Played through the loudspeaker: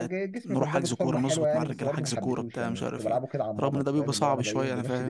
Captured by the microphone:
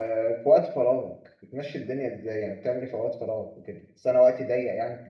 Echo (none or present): none